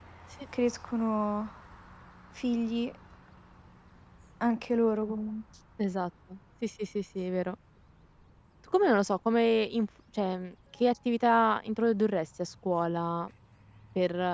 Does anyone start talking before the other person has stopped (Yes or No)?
No